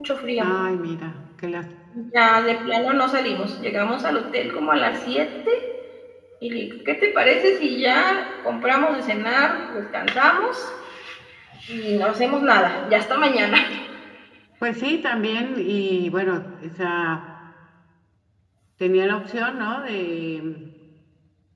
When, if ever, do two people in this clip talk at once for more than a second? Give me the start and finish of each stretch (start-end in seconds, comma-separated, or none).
none